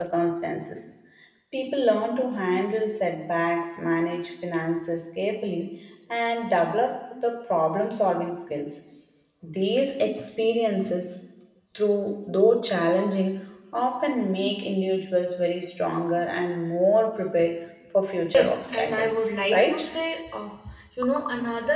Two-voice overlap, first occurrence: 18.3 s

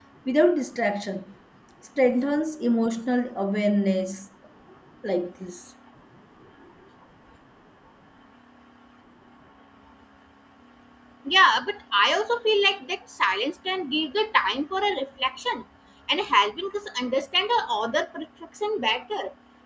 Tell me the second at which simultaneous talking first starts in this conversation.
none

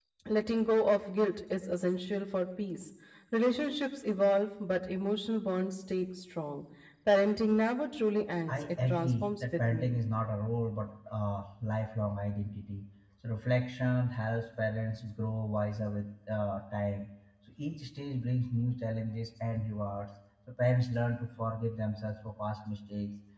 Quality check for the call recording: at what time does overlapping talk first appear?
8.5 s

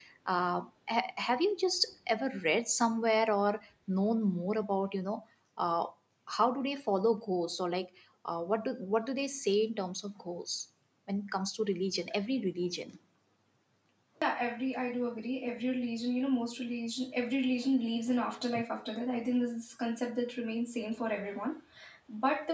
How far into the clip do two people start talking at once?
none

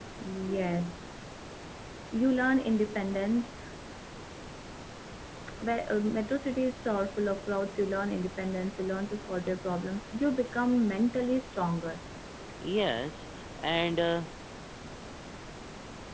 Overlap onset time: none

